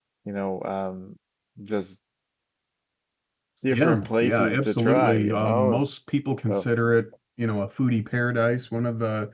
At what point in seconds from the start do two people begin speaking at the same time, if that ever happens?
3.7 s

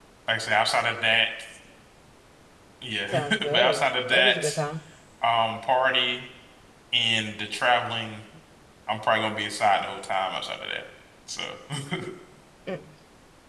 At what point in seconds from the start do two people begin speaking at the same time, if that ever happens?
3.1 s

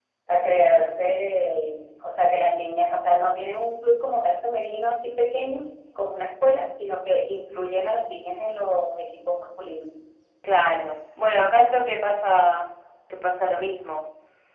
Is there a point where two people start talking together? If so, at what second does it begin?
none

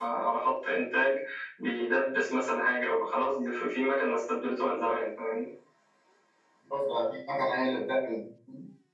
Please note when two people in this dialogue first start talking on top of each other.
none

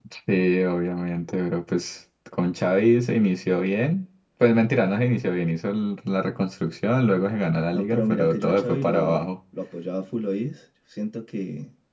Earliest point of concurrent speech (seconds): 7.7 s

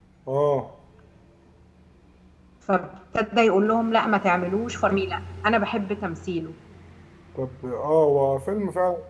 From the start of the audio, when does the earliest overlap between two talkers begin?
none

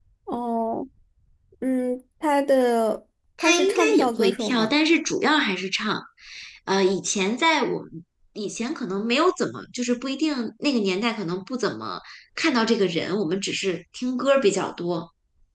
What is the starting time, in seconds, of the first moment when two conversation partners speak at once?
3.4 s

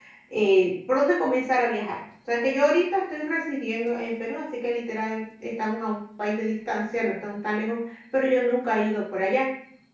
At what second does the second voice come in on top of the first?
none

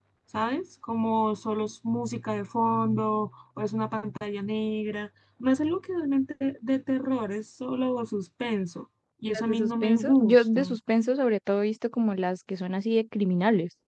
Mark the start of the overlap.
9.3 s

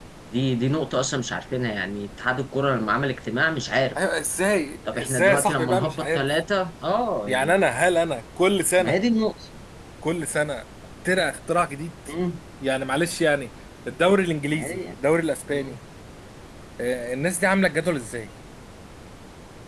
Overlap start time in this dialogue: 4.9 s

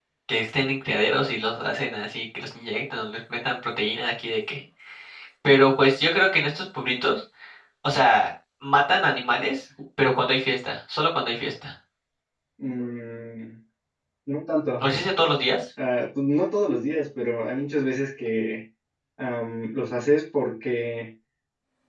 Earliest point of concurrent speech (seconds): none

